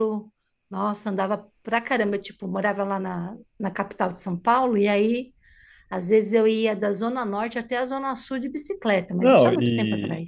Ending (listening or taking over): taking over